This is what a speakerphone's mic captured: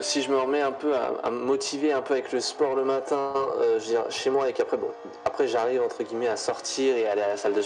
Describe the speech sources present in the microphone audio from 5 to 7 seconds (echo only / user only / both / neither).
echo only